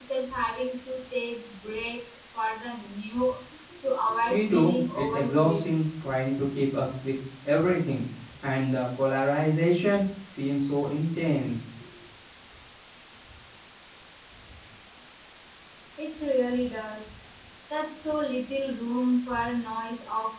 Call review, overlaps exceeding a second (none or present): present